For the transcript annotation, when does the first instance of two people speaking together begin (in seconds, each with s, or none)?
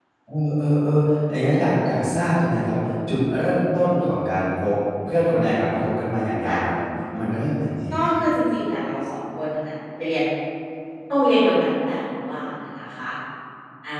none